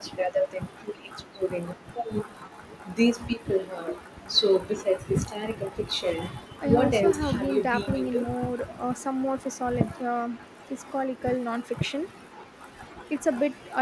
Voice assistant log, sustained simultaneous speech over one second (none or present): present